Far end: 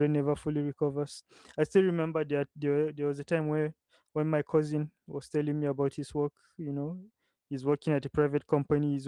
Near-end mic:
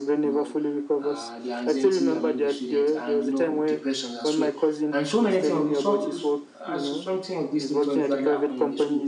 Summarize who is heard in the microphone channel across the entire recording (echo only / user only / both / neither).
both